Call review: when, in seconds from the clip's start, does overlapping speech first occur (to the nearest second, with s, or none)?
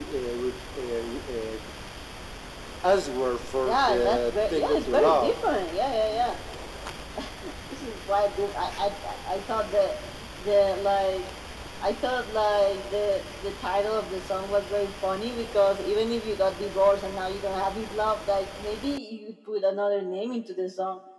4 s